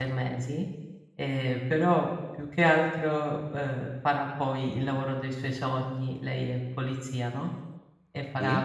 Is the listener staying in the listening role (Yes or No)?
Yes